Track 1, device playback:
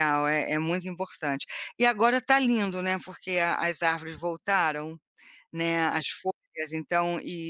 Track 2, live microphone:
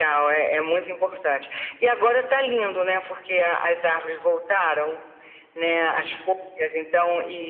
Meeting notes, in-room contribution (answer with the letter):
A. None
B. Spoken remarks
A